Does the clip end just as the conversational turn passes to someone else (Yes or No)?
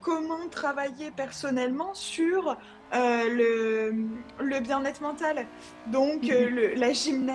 No